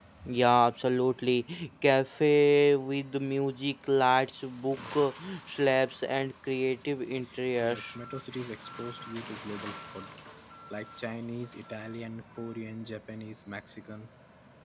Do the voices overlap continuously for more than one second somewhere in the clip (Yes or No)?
No